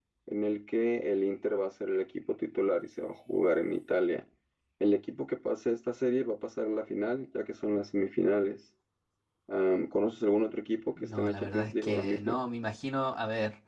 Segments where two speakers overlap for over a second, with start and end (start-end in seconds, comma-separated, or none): 11.0-12.3